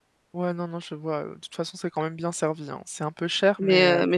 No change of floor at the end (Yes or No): No